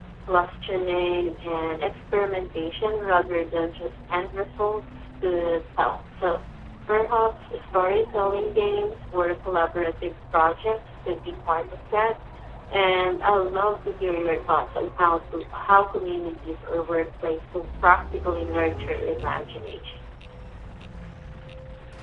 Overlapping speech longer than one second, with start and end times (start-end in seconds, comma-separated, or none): none